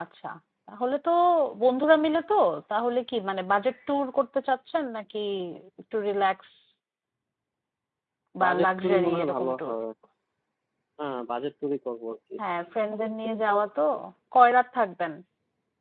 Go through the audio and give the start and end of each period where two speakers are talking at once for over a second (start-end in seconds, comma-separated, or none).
8.4-9.8